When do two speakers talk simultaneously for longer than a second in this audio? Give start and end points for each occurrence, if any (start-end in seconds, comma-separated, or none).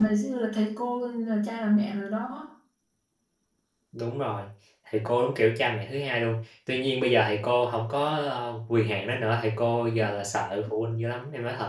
none